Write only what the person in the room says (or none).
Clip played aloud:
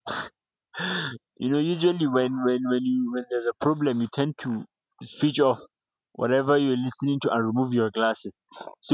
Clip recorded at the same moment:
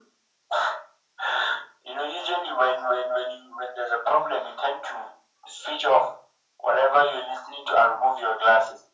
none